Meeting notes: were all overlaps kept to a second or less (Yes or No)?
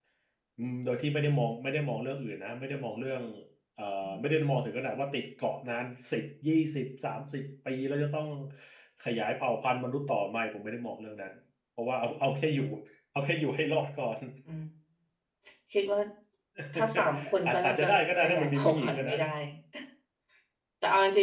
No